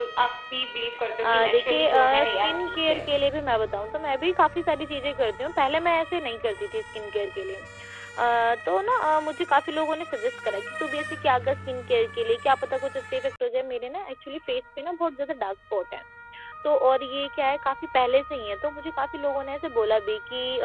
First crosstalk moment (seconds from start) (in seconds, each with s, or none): 1.2 s